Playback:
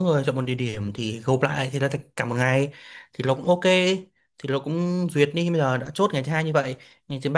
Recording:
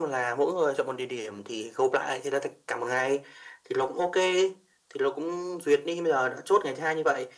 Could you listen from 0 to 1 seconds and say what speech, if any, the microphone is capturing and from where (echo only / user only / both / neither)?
echo only